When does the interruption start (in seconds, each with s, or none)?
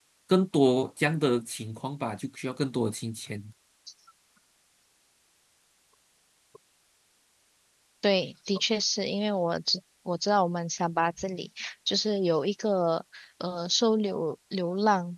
none